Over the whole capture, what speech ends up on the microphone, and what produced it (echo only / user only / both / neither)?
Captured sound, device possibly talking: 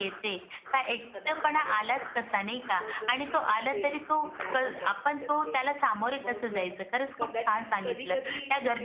both